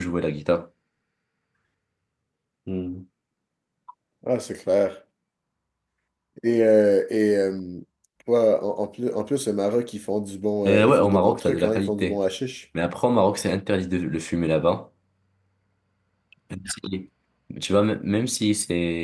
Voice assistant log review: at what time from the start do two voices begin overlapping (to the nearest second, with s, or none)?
11 s